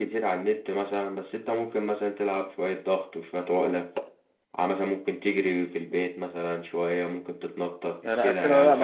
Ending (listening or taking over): taking over